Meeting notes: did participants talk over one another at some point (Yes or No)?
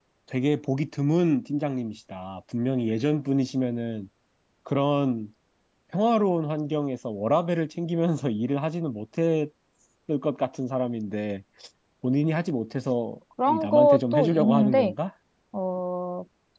Yes